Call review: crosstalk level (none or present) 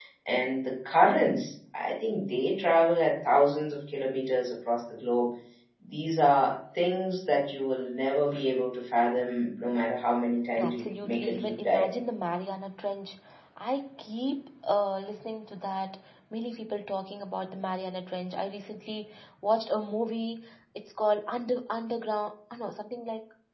present